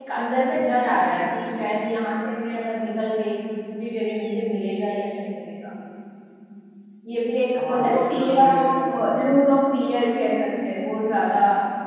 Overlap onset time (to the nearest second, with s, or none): 8 s